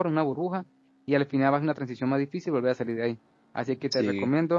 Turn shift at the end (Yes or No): No